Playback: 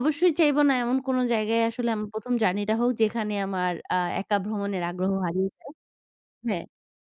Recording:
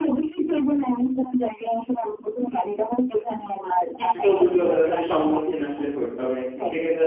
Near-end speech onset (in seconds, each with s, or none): 4.0 s